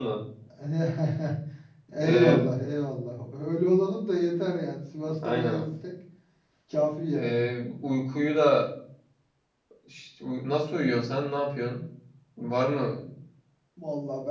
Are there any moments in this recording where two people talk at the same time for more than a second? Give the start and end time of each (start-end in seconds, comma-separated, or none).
none